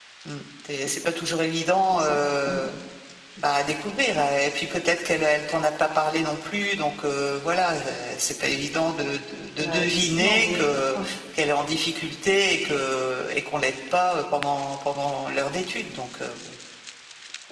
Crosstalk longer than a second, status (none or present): present